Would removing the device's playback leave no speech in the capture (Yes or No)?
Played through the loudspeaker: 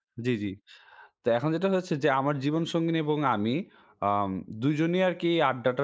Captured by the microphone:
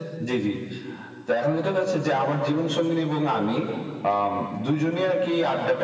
Yes